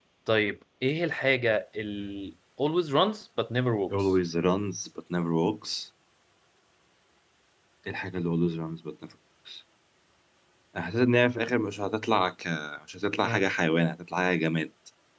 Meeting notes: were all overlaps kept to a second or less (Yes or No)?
Yes